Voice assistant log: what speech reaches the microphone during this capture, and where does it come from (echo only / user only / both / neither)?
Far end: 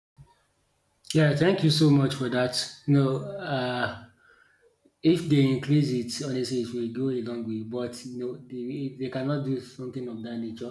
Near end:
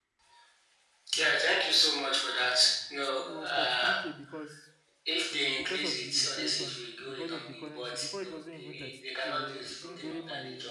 both